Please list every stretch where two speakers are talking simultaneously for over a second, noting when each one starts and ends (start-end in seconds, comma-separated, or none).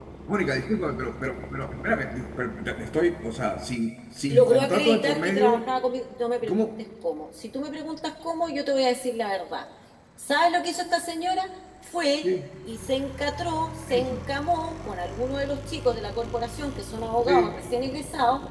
4.3-5.7